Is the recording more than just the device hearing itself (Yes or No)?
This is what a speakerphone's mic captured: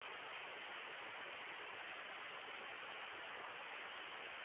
No